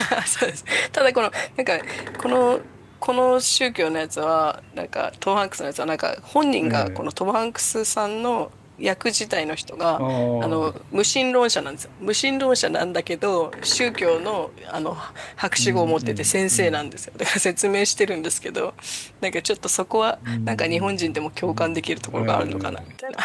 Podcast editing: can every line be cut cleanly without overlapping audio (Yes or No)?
No